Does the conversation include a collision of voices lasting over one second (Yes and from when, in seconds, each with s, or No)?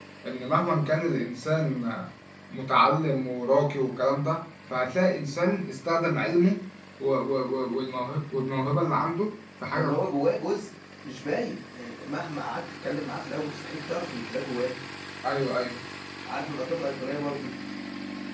No